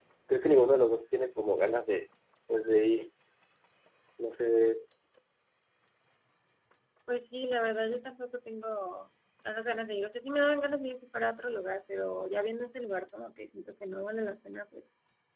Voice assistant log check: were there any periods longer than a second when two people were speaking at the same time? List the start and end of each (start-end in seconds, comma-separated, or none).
none